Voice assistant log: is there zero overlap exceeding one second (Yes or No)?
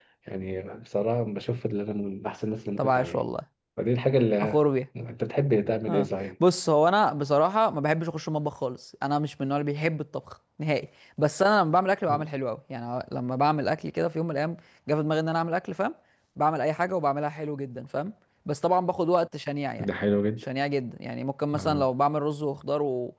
Yes